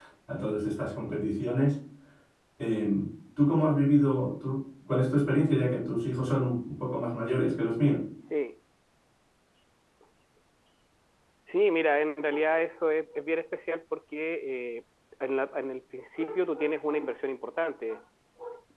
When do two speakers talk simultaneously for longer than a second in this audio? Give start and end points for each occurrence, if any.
none

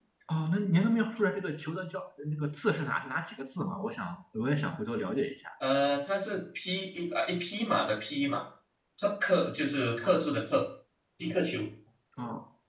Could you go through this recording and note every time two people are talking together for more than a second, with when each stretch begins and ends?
none

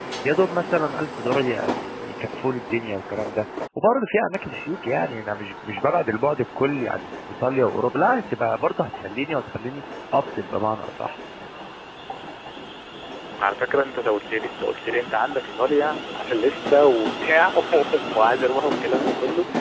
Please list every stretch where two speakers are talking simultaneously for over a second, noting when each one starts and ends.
none

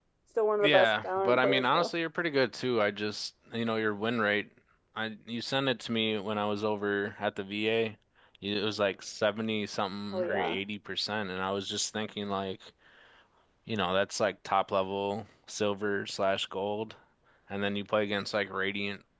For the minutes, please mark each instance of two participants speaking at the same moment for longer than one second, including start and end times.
0.6-1.9

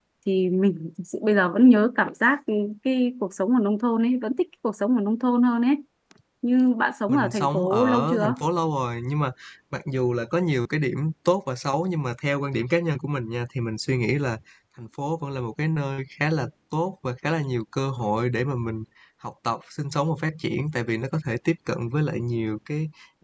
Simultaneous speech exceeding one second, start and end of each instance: 7.1-8.3

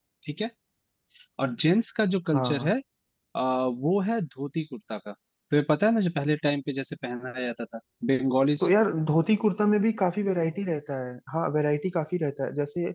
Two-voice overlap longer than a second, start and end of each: none

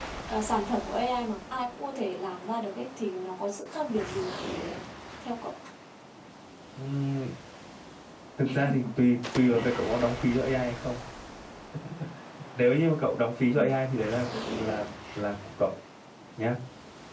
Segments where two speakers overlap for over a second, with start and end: none

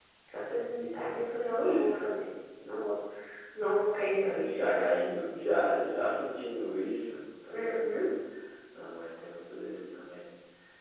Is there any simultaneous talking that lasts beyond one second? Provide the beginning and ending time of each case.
none

